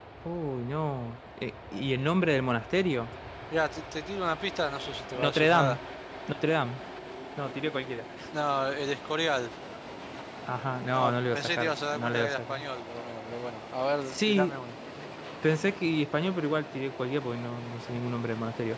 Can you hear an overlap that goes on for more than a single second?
Yes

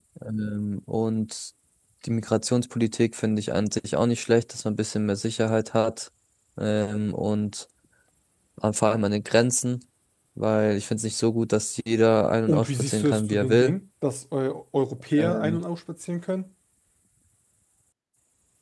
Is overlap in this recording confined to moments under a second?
No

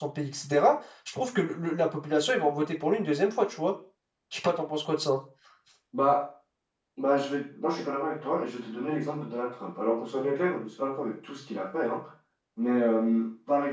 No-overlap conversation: Yes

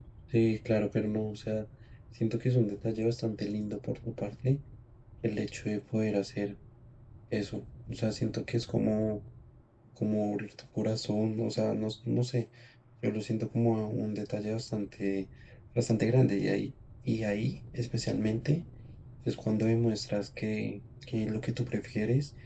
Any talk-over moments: No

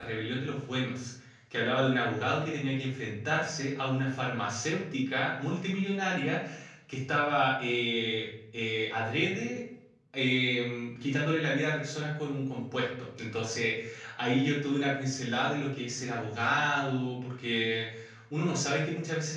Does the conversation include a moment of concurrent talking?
No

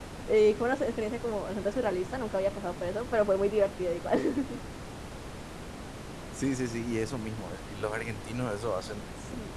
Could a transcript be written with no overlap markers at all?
Yes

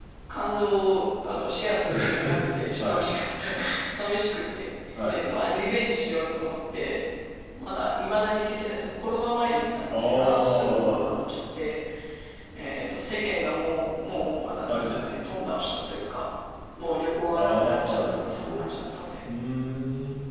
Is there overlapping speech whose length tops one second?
Yes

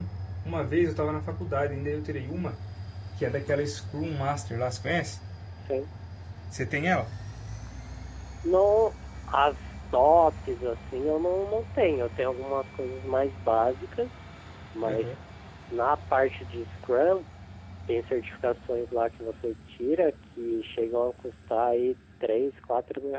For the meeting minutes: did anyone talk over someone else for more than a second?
No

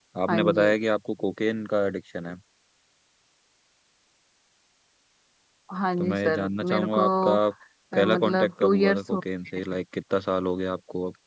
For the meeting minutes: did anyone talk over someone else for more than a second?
Yes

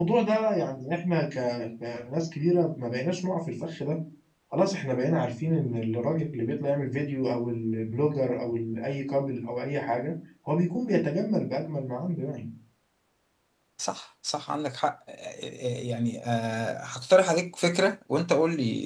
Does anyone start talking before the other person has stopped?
No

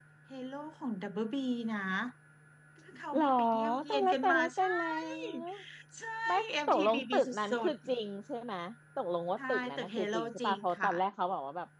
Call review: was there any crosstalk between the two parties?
Yes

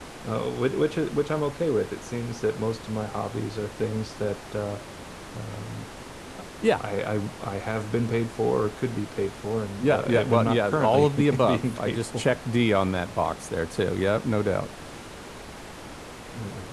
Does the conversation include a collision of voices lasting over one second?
Yes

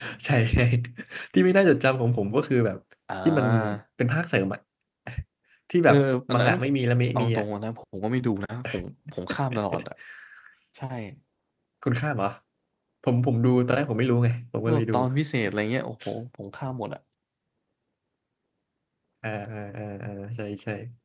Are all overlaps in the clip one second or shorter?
Yes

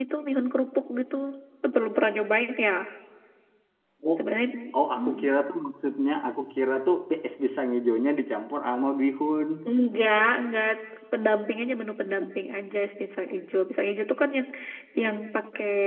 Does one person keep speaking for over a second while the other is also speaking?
No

